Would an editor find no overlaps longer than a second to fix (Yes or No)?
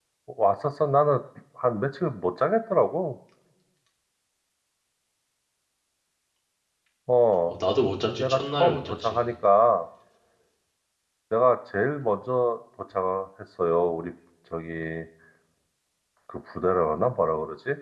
No